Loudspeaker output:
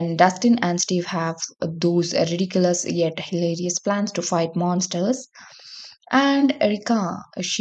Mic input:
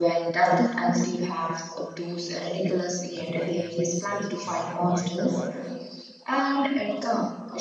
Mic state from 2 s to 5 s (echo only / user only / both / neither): both